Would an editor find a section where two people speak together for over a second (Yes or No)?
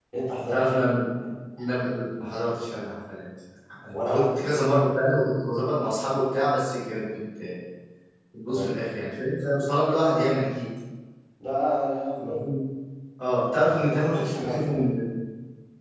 Yes